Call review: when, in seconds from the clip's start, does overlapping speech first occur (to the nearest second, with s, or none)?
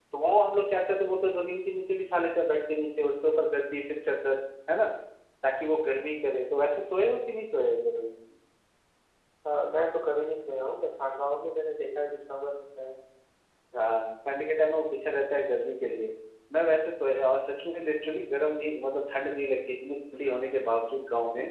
none